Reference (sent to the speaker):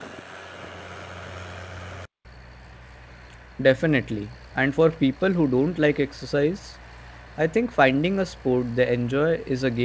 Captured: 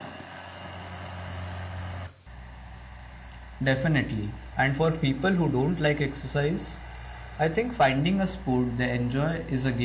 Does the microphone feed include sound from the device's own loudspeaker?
Yes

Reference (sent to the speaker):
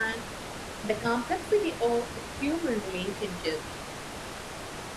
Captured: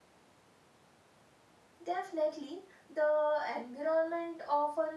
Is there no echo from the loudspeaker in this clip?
Yes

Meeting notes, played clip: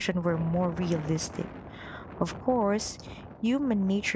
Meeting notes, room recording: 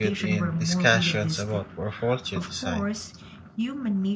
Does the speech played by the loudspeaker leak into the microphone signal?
Yes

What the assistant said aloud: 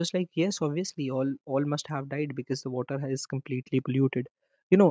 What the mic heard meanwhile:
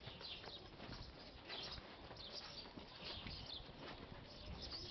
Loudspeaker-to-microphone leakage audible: No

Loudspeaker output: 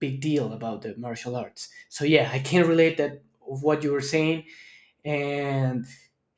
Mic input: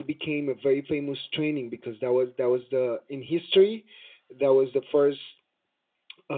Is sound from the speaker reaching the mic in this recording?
No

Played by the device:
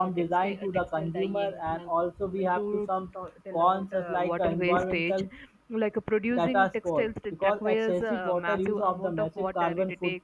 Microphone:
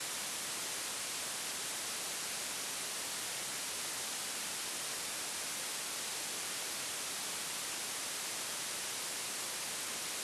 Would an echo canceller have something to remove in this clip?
No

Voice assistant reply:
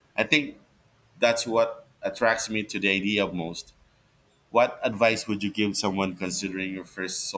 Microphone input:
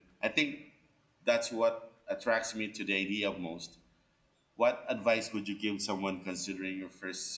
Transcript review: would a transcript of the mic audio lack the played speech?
No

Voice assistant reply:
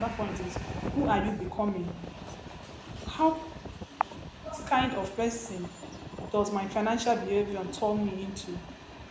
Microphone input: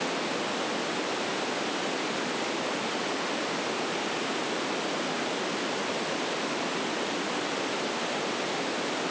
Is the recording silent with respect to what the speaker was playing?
Yes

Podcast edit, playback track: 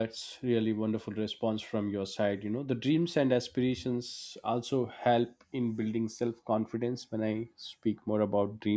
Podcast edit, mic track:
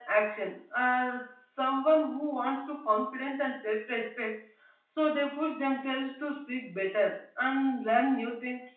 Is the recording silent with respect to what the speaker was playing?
Yes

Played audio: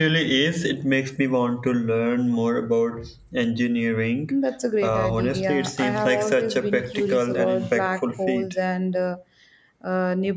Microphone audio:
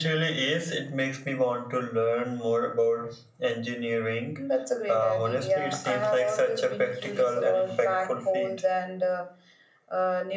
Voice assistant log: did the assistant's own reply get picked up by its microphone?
Yes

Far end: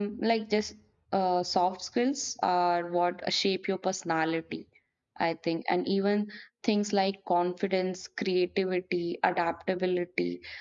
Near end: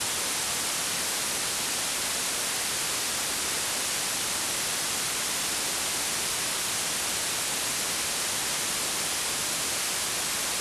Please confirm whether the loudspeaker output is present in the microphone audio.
No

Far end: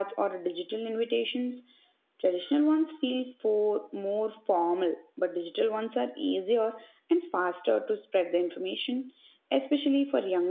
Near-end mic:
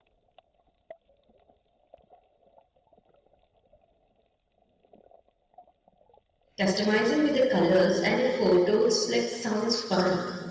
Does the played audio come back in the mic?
No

